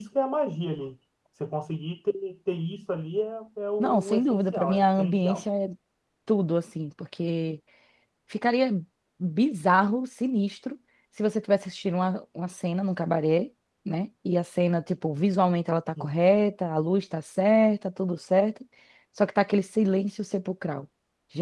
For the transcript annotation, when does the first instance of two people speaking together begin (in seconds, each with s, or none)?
3.8 s